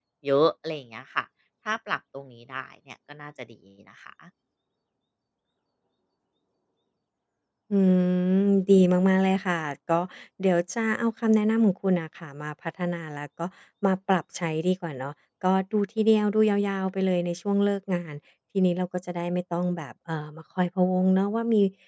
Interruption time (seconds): none

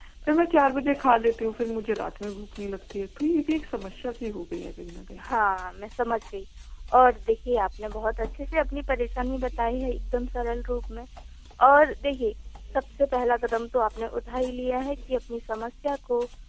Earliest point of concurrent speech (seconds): none

